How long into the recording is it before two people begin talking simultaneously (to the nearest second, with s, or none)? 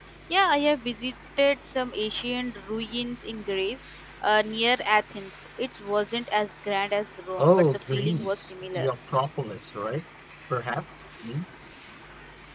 7 s